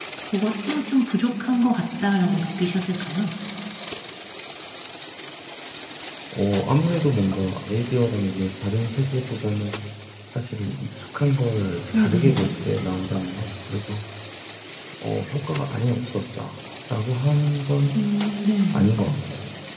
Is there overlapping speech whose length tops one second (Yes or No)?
No